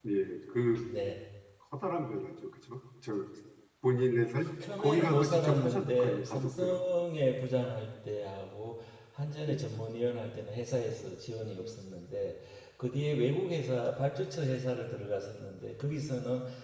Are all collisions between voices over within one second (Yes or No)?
No